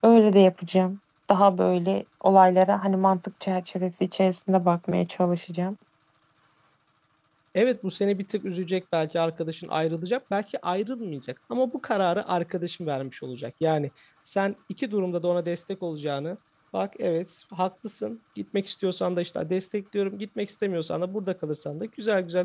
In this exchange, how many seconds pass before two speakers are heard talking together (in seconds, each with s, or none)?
none